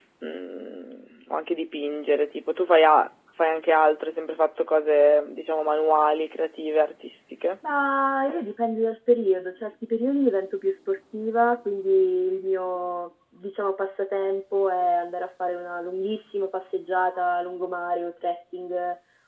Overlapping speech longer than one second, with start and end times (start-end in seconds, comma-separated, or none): none